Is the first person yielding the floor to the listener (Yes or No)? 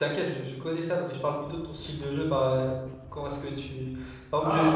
No